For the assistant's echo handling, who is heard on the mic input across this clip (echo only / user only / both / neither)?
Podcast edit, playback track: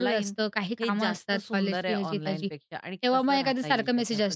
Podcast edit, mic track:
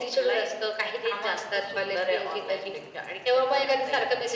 echo only